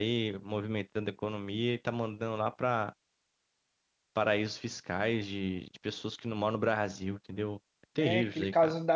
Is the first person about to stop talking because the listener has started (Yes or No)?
Yes